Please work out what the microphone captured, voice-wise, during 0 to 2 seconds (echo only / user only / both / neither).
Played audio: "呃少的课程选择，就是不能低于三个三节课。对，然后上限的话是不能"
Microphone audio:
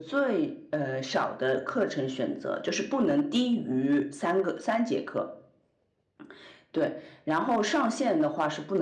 echo only